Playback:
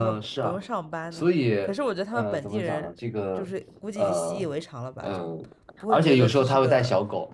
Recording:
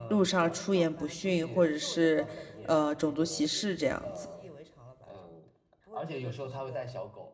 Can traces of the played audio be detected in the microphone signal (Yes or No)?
Yes